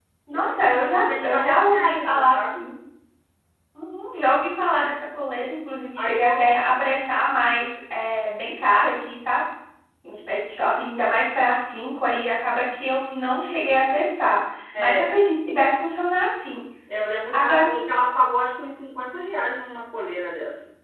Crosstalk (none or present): present